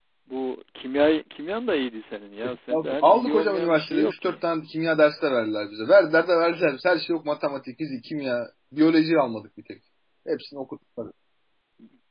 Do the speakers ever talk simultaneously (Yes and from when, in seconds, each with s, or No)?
Yes, from 2.7 s